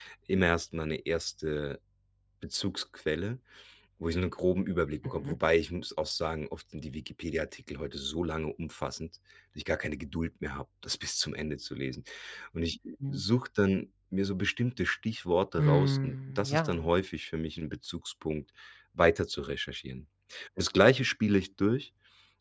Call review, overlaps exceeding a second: present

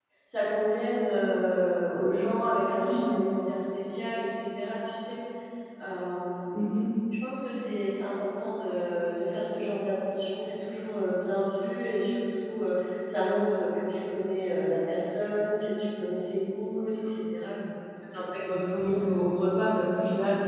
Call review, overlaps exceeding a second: none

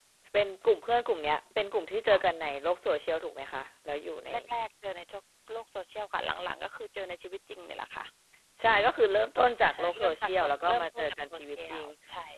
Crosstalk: present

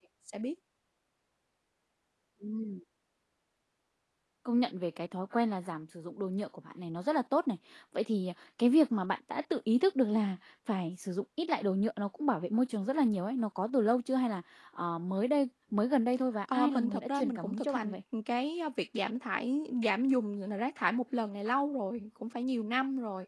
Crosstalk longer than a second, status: present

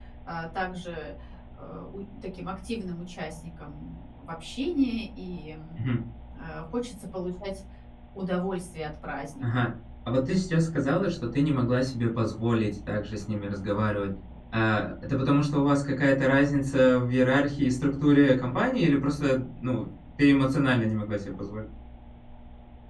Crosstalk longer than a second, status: none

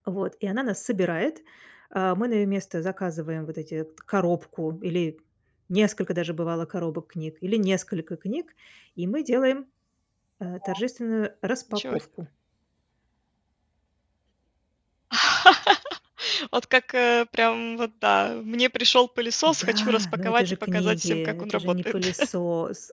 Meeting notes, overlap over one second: present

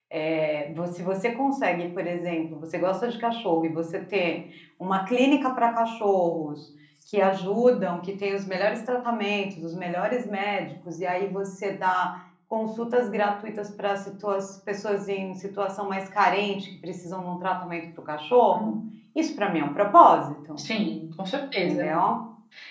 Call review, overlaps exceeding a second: none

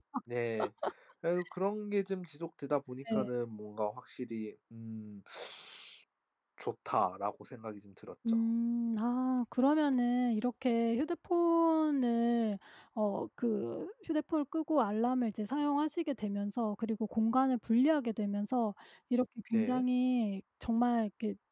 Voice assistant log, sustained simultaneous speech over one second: none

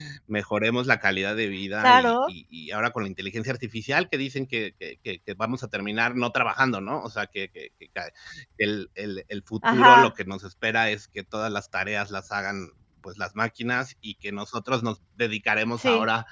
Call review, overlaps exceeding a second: none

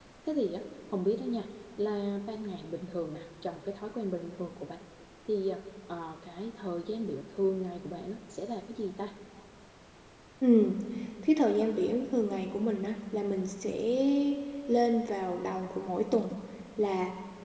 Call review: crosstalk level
none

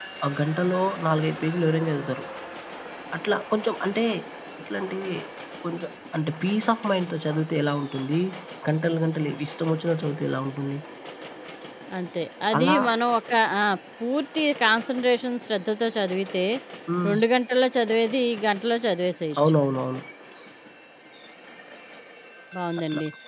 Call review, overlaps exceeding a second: none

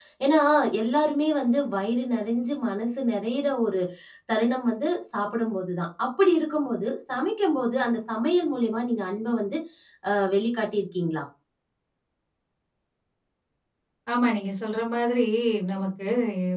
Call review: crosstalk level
none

